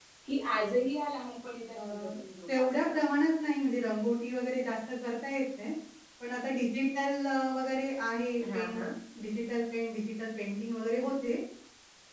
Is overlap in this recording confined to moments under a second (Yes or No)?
Yes